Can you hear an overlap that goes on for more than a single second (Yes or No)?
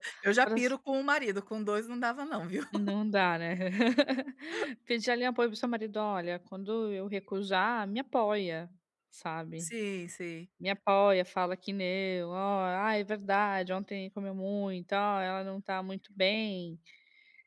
No